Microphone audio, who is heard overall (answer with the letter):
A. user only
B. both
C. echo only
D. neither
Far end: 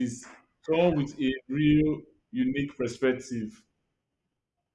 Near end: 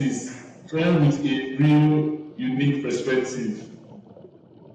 C